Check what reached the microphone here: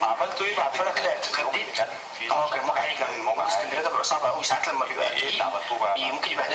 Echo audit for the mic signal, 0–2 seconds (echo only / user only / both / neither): echo only